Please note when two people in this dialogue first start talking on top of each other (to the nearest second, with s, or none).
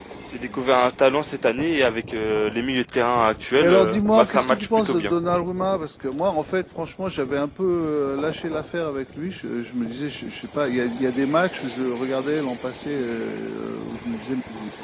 4 s